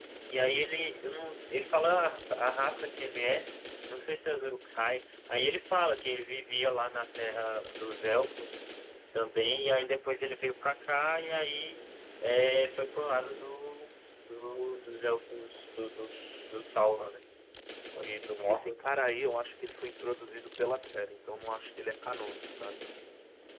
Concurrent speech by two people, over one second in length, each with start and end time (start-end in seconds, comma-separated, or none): none